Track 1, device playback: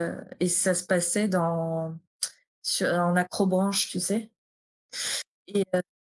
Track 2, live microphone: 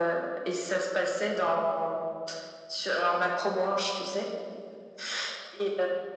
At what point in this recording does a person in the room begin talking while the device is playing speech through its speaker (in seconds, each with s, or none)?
none